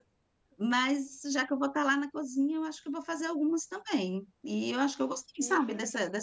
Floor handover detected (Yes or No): No